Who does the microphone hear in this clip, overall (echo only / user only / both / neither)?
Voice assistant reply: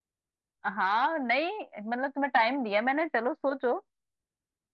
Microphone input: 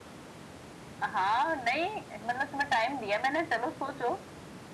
echo only